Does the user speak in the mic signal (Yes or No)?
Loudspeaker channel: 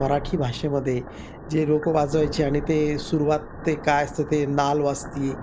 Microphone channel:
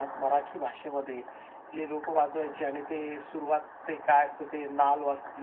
No